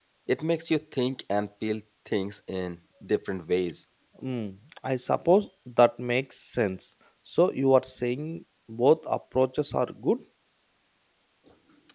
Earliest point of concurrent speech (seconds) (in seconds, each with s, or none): none